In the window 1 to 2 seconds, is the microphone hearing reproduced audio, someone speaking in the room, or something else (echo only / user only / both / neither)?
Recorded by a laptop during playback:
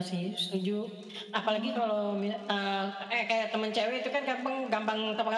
both